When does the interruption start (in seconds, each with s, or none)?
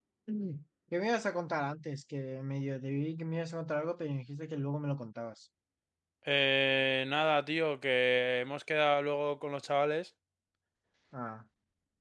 none